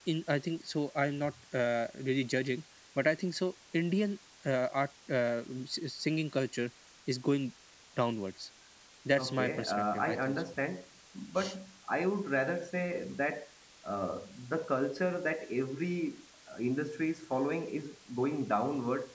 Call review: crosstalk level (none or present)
present